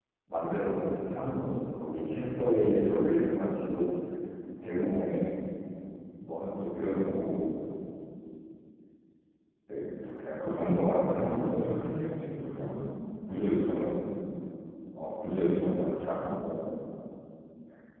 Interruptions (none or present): present